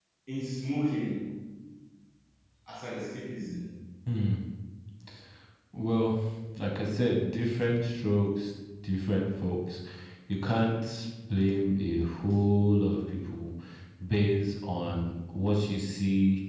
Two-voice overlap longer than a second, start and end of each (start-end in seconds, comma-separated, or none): none